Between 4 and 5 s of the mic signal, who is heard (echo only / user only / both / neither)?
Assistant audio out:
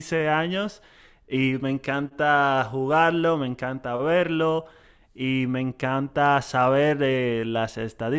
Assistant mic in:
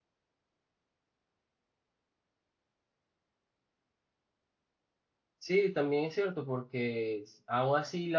neither